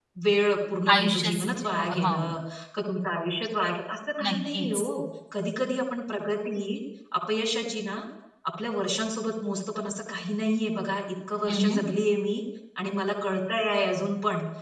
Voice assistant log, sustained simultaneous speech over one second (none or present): present